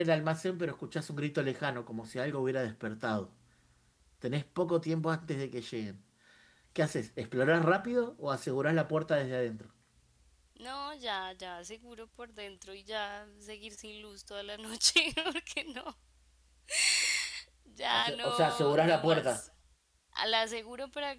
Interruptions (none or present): present